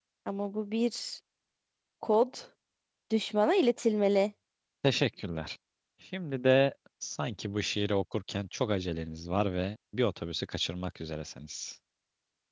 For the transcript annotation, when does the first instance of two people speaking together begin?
none

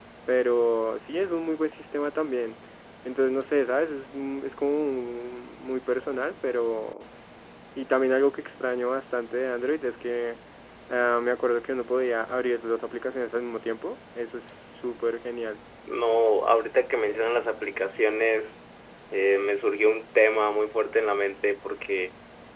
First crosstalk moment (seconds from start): none

